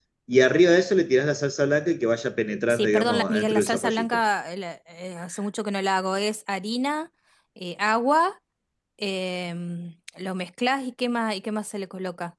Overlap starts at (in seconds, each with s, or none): 2.7 s